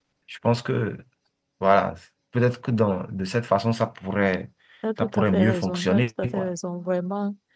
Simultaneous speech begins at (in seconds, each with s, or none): 5.0 s